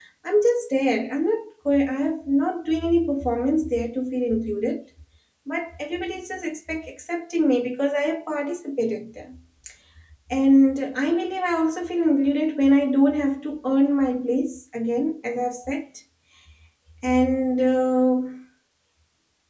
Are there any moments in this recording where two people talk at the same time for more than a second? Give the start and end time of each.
none

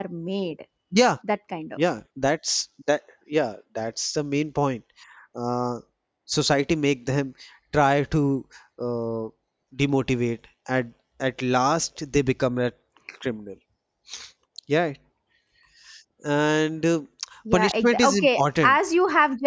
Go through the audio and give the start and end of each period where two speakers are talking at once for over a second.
17.5-18.8

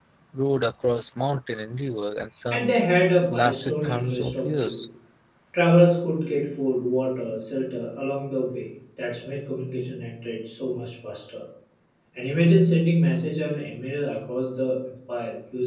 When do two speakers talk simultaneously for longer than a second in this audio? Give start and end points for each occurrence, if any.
3.3-4.8

